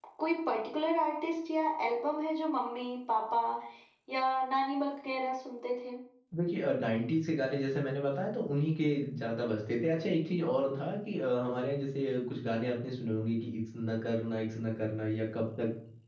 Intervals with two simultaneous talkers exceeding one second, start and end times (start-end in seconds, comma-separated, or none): none